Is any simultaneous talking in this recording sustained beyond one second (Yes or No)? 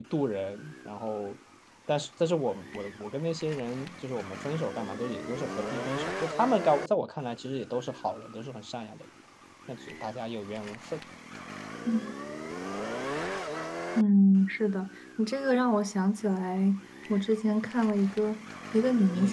No